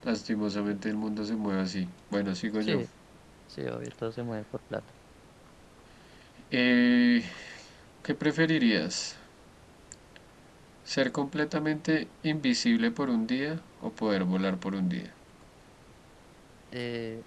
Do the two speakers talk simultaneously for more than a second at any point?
No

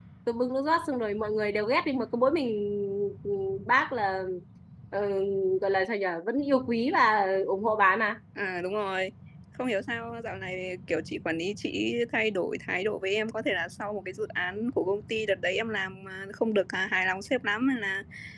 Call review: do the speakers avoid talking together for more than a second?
Yes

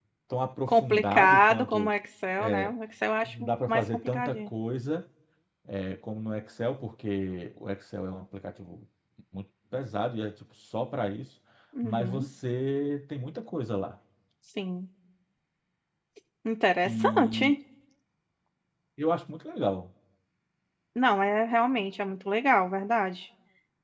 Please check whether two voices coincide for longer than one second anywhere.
Yes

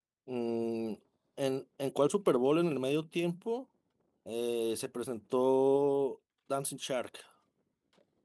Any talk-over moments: No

